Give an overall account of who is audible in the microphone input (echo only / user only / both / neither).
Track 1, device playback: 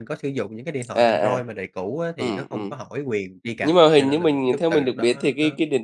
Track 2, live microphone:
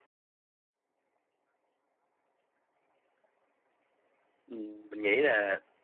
user only